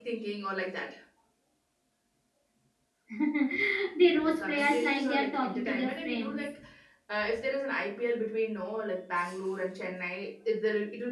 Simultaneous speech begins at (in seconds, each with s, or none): 4.4 s